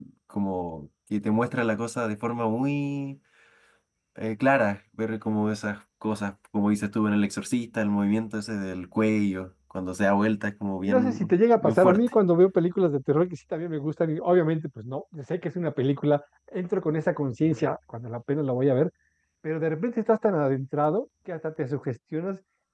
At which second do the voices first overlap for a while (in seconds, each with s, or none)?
10.8 s